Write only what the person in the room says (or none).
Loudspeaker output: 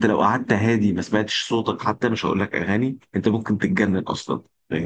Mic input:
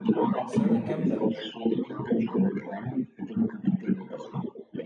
سنه كامله